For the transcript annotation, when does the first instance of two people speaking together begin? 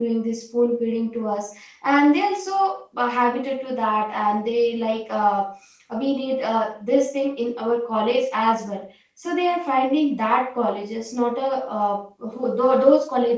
none

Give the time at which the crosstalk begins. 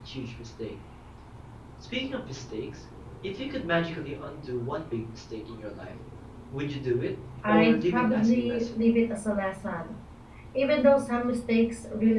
7.4 s

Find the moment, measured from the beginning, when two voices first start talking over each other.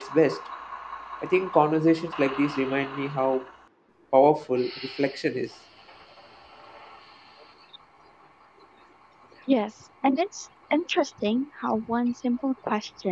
none

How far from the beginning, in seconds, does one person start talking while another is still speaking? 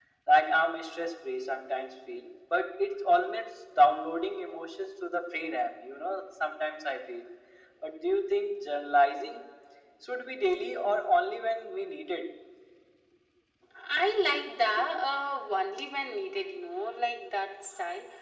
none

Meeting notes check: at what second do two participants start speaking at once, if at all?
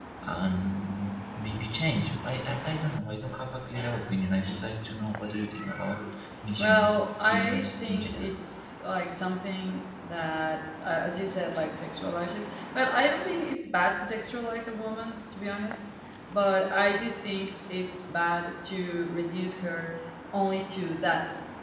6.6 s

